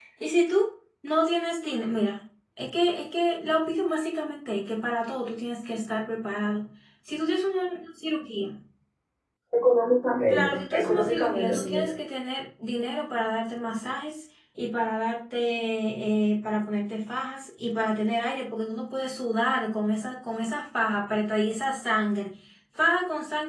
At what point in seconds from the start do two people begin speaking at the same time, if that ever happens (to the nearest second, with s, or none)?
10 s